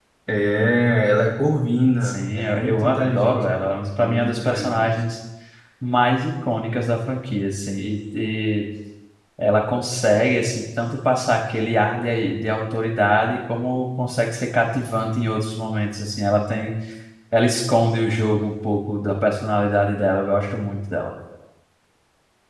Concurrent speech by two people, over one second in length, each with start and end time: 2.0-5.0

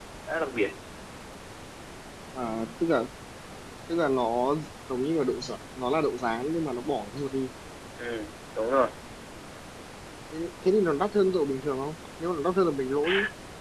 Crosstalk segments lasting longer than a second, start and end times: none

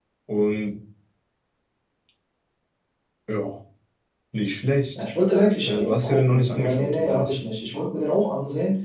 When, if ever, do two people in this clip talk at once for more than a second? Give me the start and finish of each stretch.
5.7-7.3

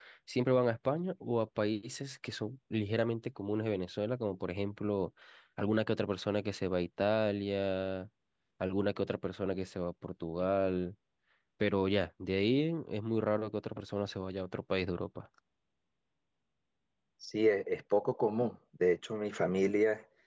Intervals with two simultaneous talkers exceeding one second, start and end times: none

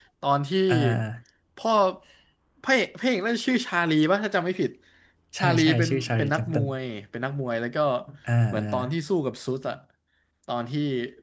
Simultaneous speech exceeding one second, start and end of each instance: 5.4-6.7

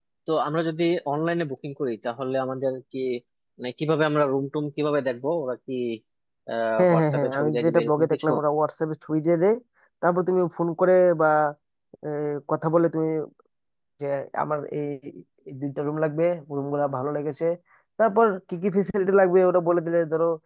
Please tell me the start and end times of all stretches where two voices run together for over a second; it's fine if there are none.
6.8-8.3

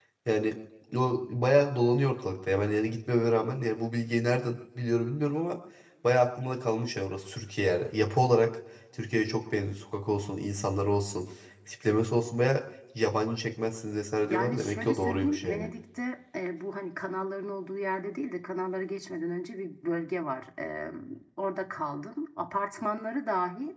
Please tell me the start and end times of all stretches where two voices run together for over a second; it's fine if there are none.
14.2-15.7

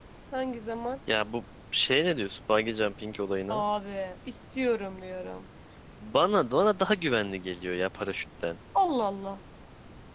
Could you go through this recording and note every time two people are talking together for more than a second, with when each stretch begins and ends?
none

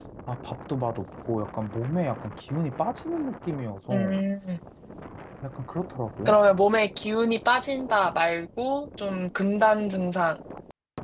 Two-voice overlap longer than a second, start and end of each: none

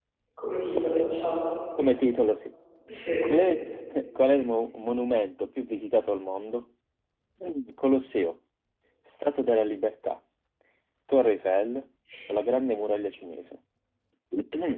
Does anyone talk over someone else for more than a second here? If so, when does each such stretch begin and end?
none

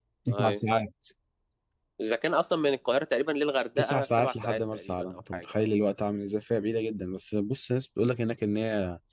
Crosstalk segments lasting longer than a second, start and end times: 3.8-5.8

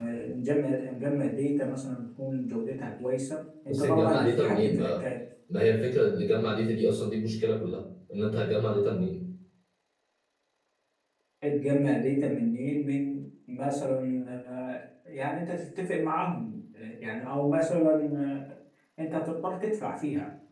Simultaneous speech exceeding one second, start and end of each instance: 3.7-5.0

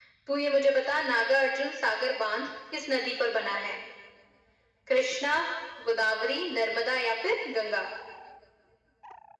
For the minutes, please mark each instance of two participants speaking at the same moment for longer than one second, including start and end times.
none

